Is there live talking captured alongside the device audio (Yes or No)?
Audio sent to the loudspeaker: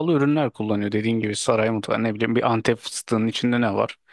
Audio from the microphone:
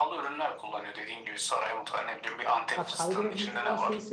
Yes